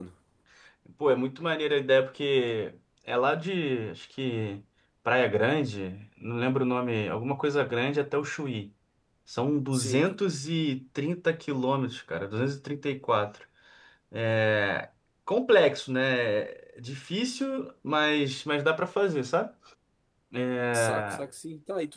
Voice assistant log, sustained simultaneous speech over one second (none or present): none